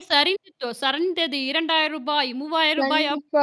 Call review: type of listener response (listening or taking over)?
taking over